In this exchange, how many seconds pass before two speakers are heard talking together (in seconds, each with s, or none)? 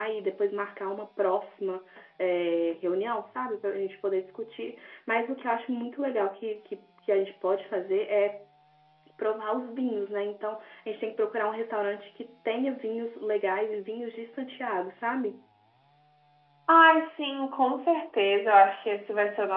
none